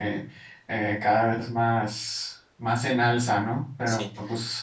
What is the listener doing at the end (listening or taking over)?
listening